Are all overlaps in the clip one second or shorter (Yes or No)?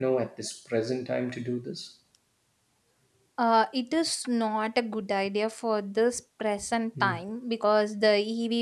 Yes